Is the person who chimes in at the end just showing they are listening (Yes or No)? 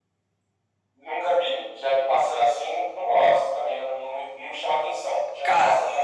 No